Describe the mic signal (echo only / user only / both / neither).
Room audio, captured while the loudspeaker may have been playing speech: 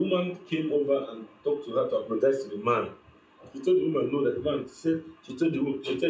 echo only